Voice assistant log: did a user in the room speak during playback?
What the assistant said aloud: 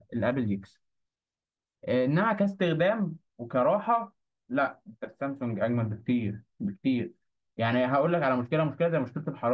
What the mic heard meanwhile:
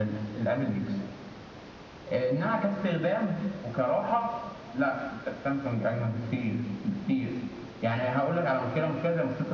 No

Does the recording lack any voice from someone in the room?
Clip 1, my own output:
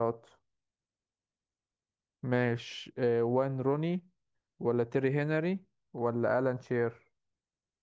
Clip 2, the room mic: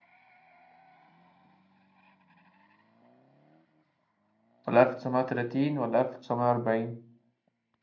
No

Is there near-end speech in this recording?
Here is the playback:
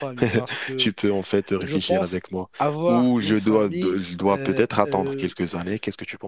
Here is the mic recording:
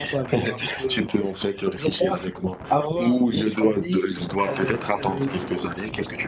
No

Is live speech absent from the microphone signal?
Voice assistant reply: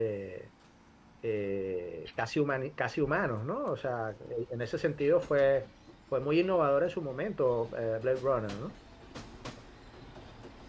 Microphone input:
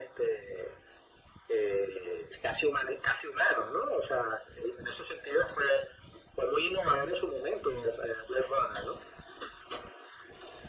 Yes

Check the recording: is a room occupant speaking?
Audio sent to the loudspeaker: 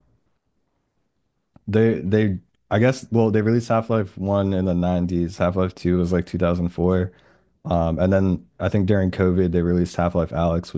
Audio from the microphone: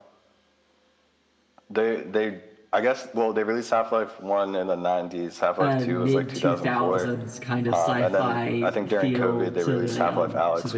Yes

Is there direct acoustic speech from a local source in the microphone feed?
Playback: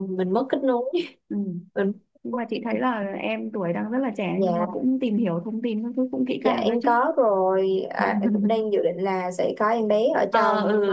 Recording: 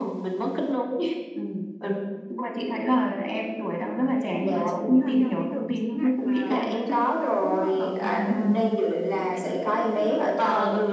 Yes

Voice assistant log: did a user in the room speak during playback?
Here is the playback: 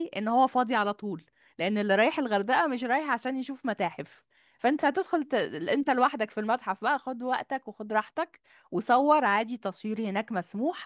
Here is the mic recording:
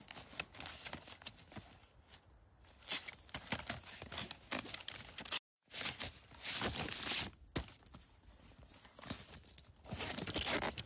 No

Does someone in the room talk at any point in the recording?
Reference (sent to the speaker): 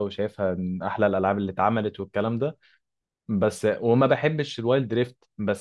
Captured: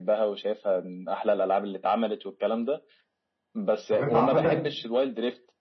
Yes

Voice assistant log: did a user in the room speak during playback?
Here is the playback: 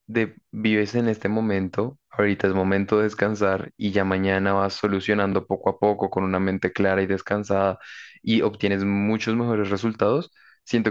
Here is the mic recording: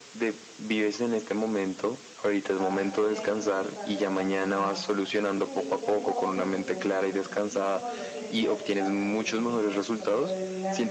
Yes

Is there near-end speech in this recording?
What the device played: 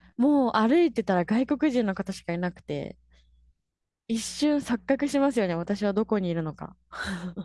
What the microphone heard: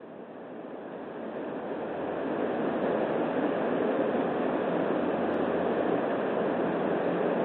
No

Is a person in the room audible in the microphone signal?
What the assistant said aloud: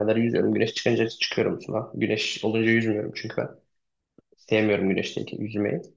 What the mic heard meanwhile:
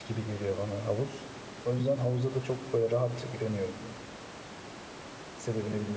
Yes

